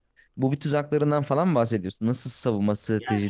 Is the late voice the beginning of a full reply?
Yes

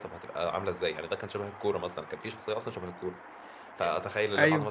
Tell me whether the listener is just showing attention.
Yes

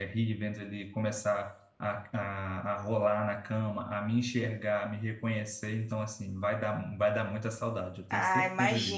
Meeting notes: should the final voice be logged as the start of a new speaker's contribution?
Yes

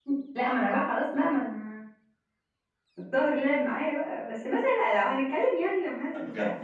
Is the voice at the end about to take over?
Yes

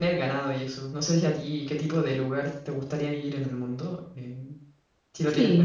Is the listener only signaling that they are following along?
No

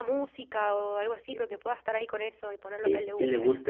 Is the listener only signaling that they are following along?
No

